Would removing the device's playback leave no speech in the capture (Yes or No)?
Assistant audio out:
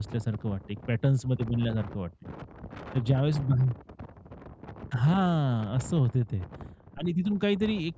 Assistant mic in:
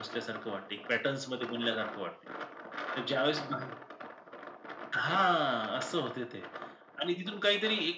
Yes